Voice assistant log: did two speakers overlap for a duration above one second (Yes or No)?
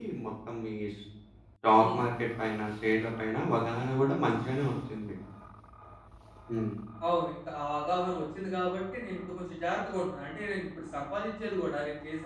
No